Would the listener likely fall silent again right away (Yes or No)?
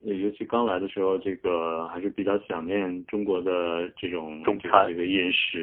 Yes